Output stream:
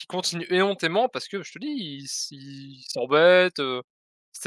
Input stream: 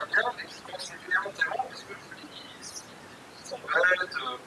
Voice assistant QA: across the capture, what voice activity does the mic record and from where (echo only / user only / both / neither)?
echo only